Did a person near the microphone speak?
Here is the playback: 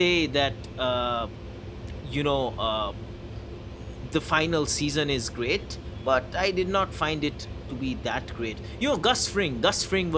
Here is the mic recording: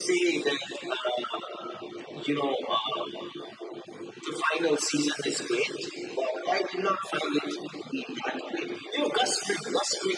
No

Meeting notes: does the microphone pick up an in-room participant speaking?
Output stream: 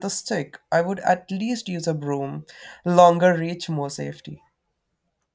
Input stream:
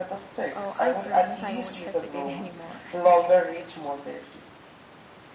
Yes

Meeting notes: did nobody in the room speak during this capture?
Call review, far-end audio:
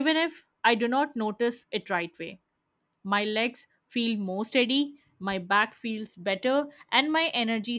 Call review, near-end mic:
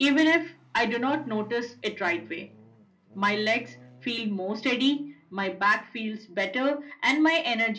Yes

